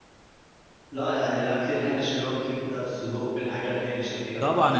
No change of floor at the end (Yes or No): No